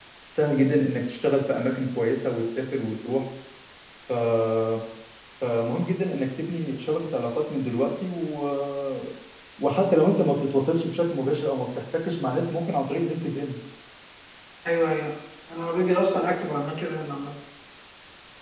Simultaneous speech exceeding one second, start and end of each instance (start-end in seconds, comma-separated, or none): none